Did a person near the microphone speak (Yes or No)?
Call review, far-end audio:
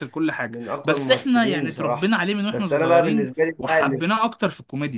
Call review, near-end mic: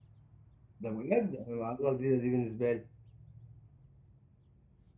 Yes